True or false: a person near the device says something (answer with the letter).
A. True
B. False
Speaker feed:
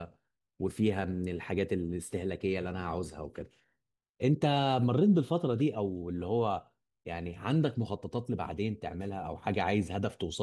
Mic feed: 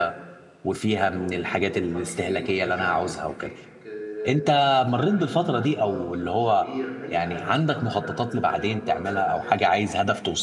A